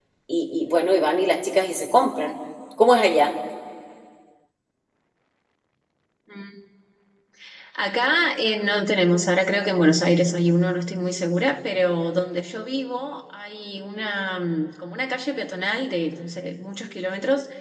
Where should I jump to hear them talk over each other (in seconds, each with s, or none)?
none